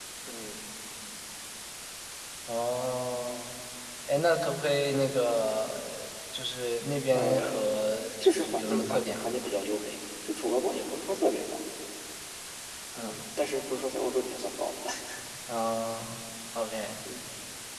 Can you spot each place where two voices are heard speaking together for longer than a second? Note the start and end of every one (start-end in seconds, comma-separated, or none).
8.2-9.5